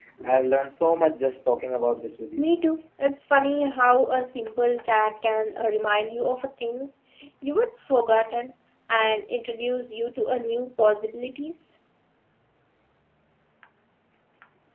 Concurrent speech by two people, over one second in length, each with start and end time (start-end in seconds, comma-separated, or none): none